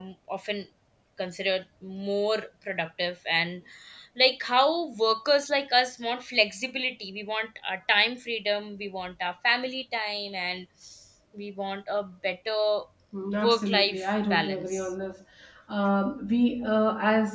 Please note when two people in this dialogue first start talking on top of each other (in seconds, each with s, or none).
13.4 s